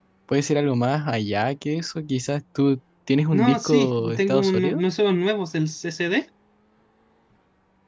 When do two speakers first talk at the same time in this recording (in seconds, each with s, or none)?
3.3 s